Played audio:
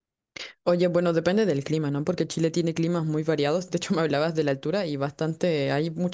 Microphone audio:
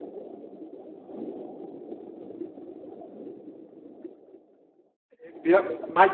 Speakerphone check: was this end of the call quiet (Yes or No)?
No